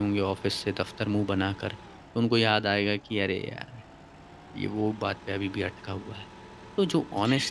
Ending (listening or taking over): listening